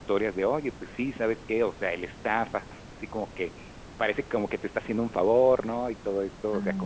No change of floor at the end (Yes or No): Yes